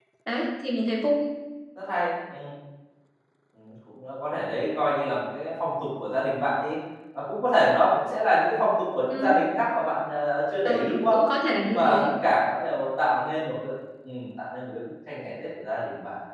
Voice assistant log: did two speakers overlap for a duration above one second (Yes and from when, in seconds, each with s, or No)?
No